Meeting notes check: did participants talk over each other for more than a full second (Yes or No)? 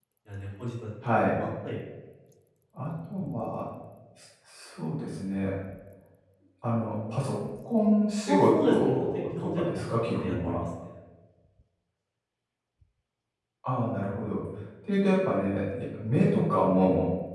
Yes